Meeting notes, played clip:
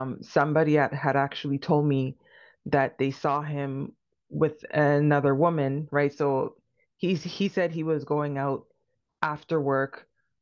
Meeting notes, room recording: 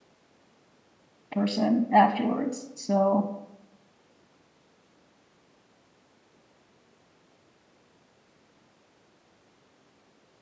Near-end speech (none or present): present